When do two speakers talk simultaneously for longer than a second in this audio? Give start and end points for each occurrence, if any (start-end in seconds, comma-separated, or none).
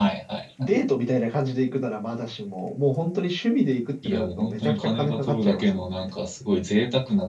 4.0-5.9